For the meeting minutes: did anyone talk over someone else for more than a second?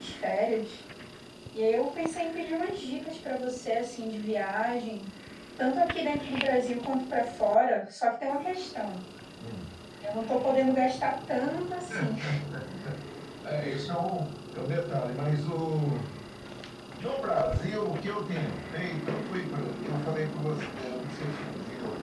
No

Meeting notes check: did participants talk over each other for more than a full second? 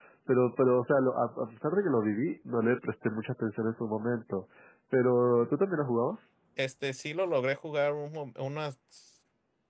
No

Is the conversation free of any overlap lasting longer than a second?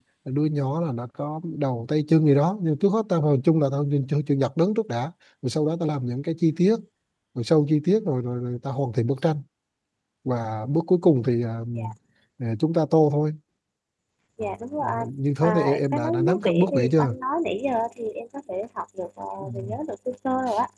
No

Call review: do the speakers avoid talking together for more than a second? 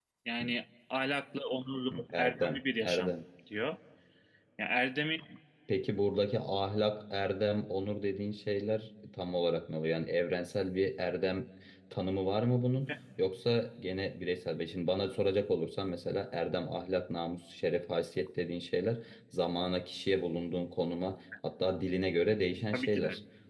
No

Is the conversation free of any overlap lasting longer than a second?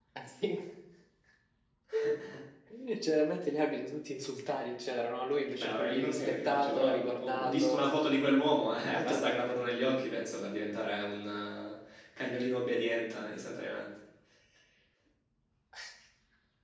No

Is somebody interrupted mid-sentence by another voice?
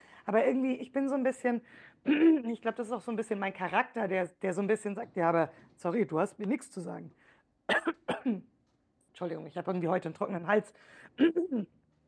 No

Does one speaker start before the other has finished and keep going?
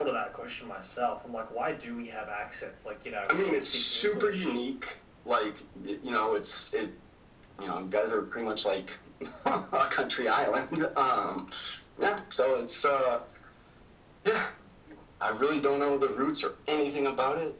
Yes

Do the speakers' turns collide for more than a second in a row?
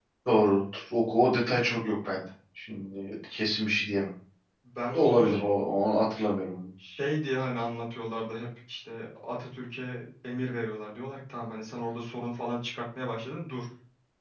No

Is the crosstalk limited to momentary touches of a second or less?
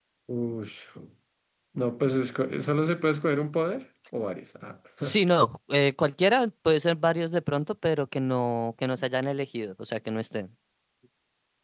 Yes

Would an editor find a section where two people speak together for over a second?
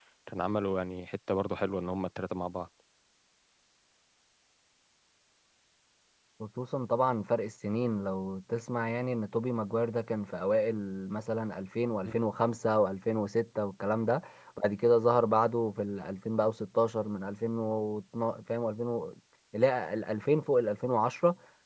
No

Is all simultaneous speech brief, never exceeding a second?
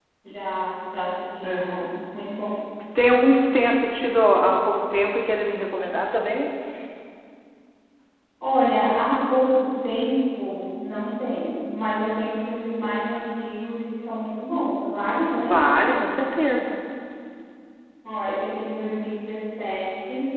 Yes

